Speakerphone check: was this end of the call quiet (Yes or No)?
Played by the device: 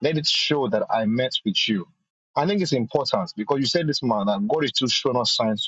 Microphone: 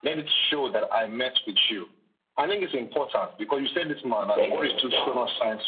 No